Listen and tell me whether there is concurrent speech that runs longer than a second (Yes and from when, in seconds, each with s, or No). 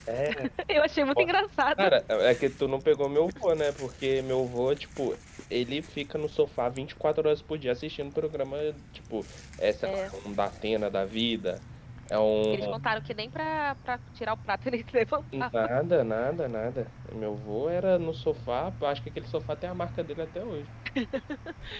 No